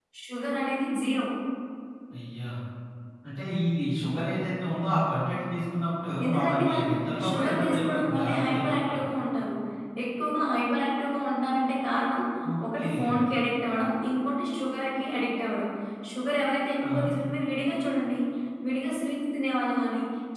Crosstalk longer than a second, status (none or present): present